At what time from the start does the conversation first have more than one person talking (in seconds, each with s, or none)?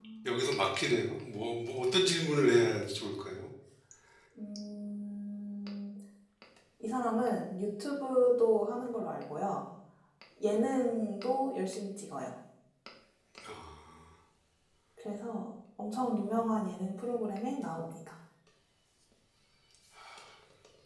none